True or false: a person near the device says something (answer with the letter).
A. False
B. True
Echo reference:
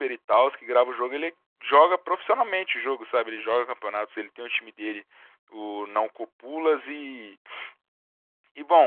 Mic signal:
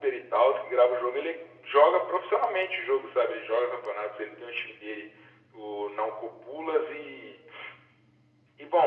A